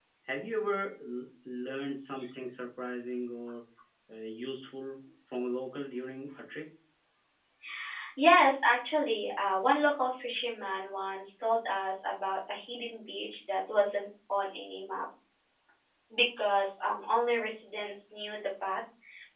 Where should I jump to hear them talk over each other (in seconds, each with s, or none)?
none